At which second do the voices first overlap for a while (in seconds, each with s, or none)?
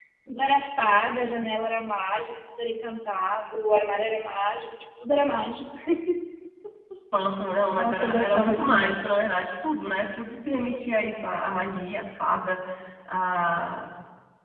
7.7 s